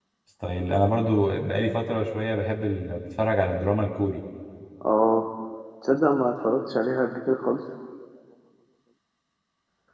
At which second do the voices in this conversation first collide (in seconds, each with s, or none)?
none